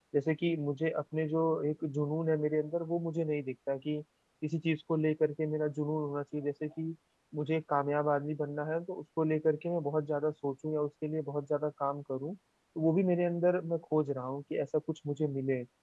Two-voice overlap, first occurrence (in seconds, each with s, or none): none